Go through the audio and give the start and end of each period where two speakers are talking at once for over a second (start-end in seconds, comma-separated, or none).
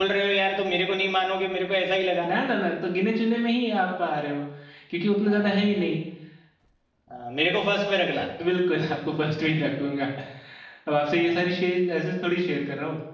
none